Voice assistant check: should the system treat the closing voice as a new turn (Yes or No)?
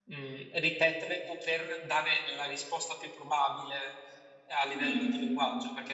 No